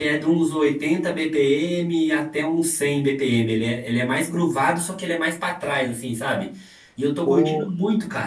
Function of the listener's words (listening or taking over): listening